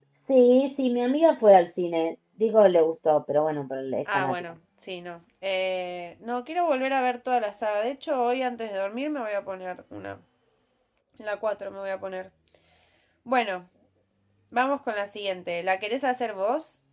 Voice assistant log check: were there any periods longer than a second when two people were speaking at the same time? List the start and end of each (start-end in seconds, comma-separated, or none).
none